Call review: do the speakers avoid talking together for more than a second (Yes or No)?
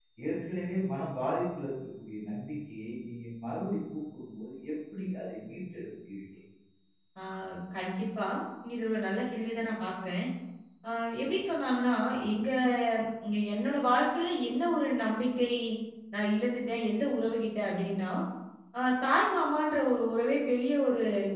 Yes